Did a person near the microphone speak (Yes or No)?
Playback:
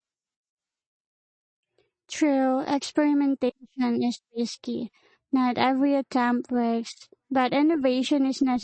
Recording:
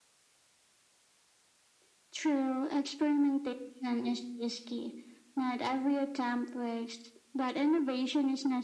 No